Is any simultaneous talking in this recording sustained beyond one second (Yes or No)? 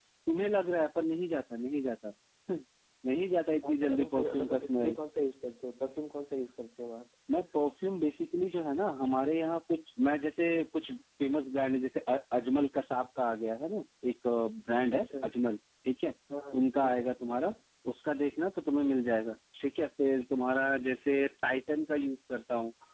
Yes